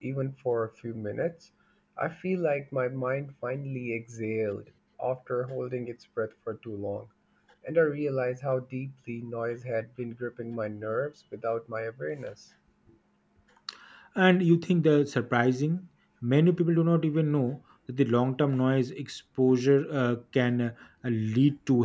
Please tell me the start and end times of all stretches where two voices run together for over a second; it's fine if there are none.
none

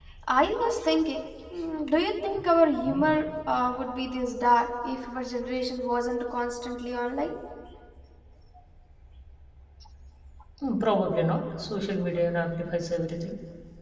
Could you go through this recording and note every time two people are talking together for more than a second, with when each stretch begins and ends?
none

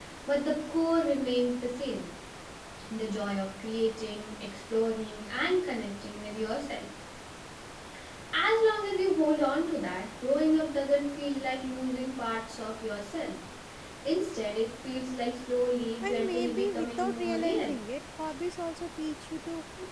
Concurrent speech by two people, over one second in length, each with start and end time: 16.0-17.7

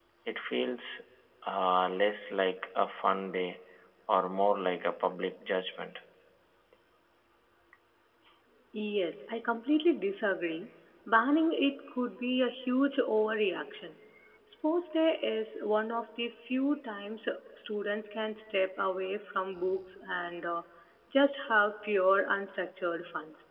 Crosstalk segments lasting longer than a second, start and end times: none

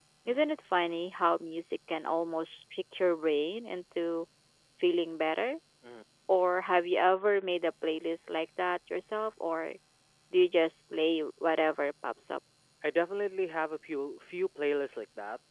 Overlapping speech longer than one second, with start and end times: none

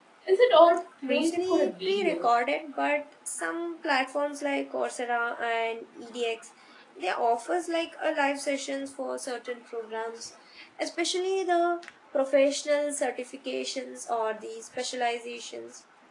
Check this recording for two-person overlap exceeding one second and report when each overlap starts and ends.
1.1-2.4

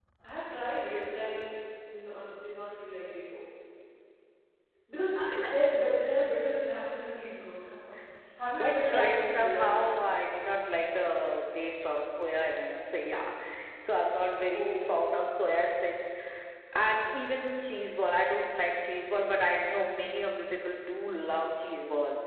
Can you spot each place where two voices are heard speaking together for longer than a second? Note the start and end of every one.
8.6-9.8

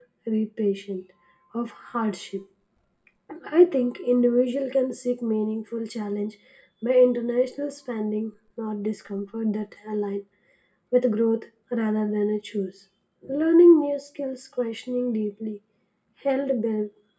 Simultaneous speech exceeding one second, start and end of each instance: none

